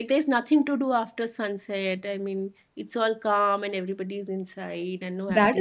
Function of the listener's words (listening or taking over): taking over